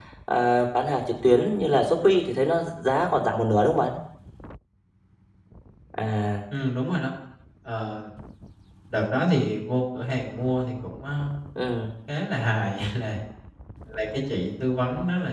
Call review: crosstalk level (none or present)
none